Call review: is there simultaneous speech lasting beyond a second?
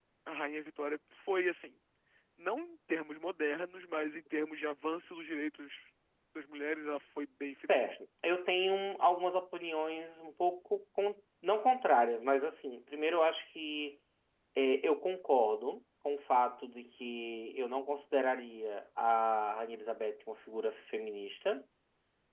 No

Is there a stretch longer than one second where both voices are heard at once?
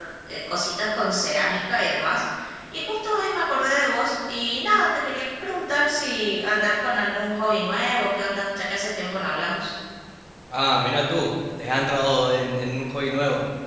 No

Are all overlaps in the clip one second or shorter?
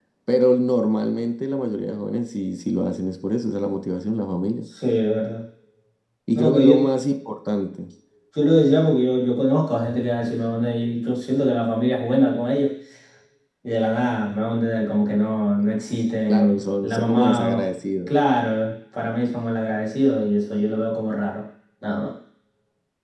No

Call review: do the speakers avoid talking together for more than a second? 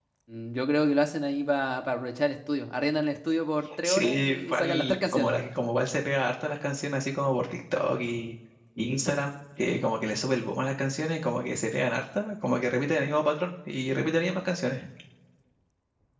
No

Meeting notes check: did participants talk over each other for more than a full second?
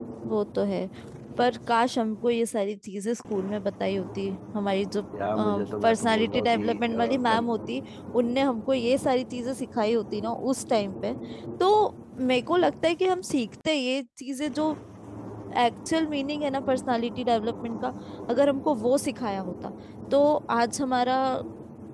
Yes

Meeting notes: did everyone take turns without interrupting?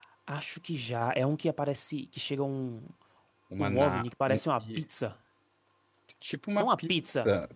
No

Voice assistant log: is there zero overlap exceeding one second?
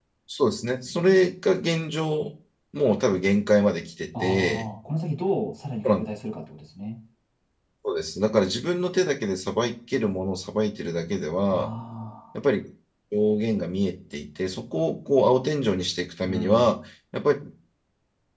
Yes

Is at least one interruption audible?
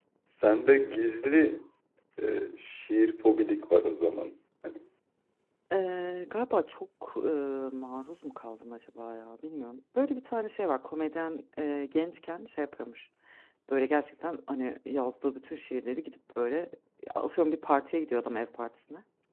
No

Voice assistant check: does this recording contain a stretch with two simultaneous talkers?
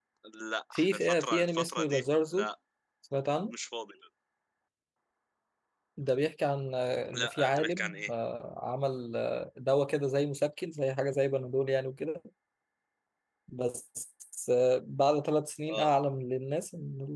Yes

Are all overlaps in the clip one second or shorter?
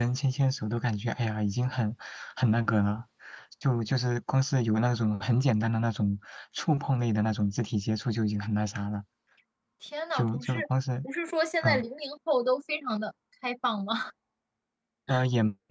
Yes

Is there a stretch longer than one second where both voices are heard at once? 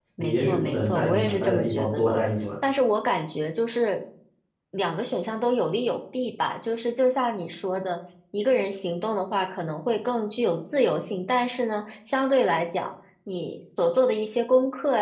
Yes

